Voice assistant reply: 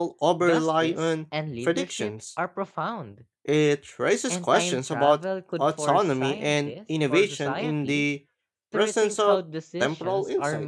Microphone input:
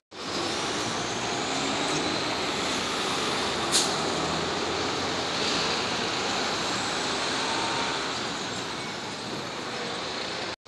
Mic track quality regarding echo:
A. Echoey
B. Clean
B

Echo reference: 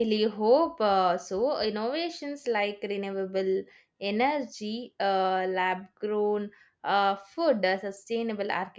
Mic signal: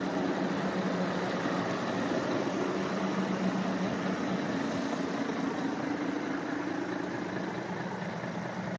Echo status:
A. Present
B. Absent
B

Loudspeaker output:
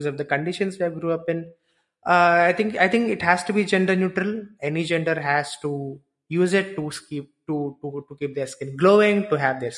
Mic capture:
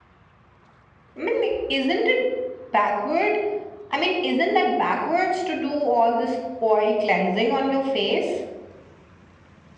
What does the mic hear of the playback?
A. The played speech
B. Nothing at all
B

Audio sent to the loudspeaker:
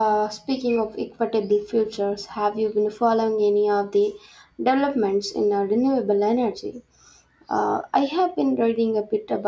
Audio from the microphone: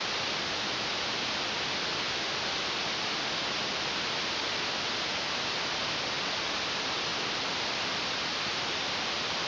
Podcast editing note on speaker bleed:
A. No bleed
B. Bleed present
A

